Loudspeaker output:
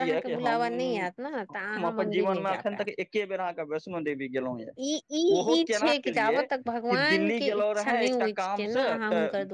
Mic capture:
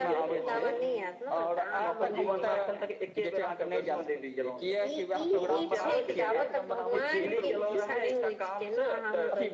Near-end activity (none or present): present